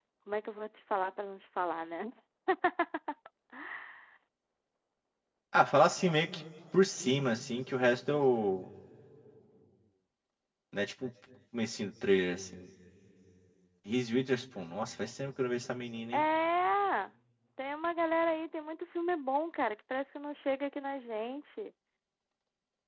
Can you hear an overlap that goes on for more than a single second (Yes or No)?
No